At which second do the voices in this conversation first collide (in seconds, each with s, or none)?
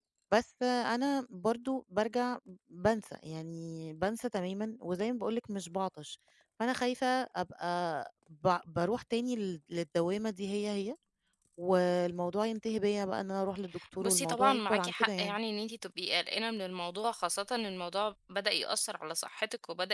13.8 s